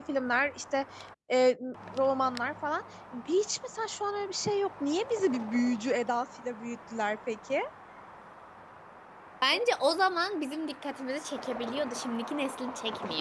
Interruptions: none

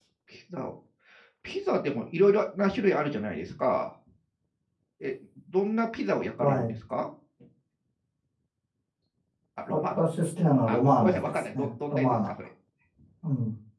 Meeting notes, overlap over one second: present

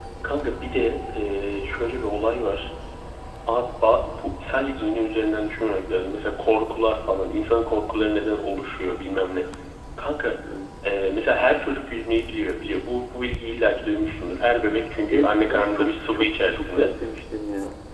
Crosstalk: present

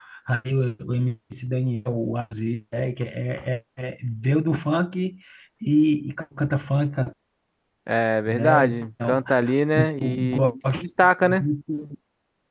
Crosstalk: present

